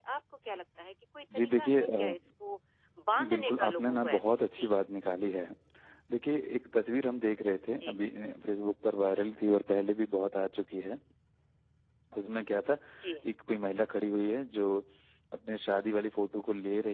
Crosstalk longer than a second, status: present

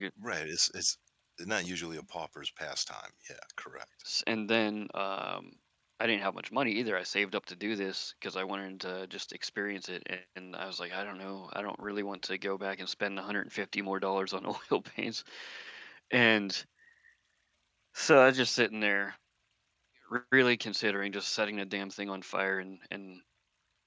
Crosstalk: none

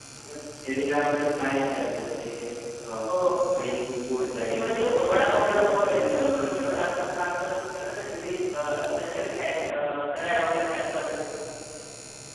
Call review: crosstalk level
present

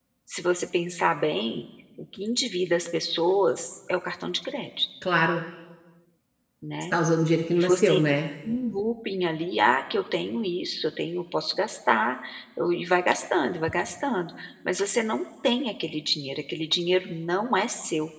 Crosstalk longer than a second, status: none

